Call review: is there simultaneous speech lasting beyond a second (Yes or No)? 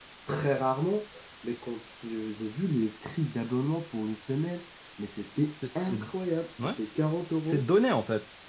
No